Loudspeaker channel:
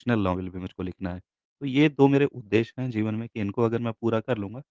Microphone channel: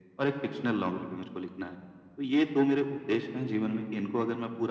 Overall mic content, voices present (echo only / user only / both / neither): echo only